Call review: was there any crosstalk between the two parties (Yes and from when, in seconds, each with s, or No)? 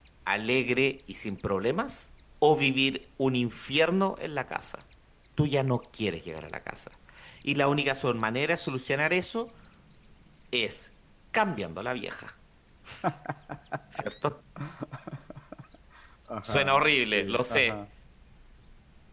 Yes, from 16.4 s